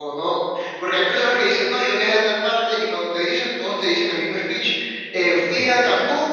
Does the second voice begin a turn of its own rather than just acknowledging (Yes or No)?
No